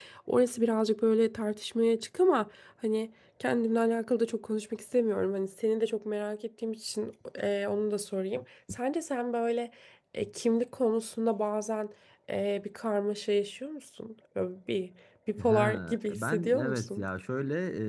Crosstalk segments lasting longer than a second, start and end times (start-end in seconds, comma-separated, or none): 15.4-17.1